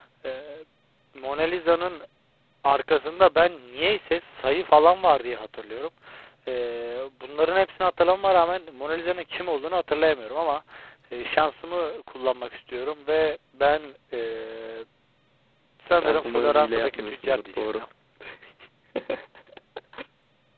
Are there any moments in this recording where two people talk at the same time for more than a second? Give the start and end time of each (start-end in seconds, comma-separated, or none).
16.0-17.9